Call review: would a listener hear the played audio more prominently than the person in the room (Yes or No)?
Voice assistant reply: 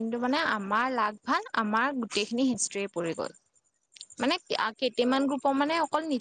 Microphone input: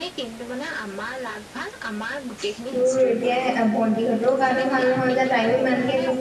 No